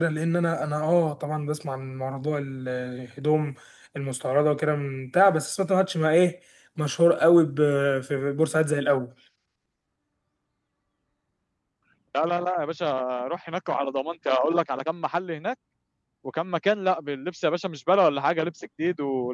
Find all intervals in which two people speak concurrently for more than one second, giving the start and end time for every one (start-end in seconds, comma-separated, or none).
none